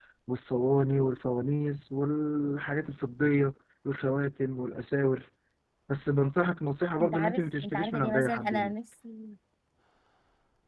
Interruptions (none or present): present